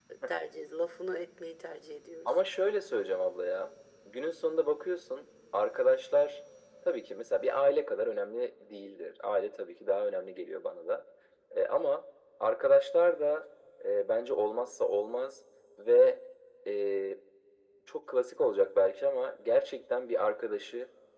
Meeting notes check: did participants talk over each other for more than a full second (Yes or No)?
No